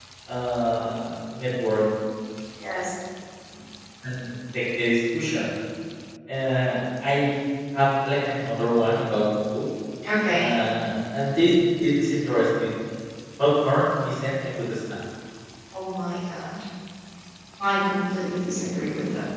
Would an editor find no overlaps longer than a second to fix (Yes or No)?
Yes